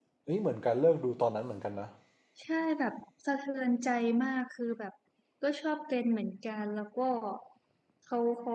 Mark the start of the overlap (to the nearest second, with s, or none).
none